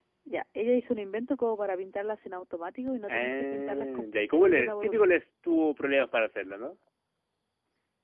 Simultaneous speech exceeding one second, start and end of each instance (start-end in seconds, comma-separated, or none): 3.1-5.1